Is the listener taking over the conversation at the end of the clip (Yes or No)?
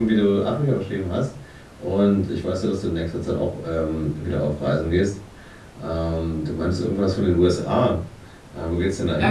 Yes